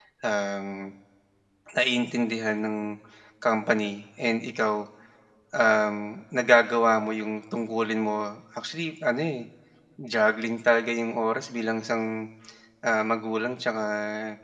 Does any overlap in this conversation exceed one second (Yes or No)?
No